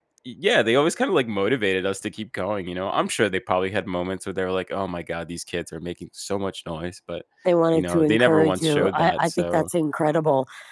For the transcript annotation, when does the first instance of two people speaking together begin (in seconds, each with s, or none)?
7.7 s